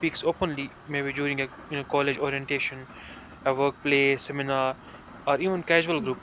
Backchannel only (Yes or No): Yes